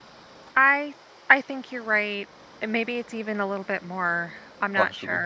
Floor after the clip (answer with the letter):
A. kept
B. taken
B